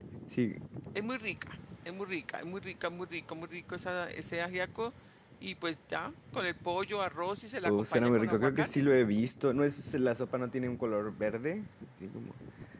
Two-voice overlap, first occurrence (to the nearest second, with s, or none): 8 s